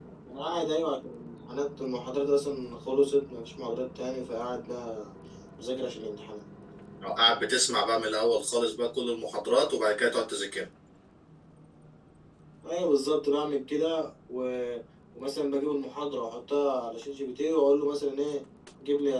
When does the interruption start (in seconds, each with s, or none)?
none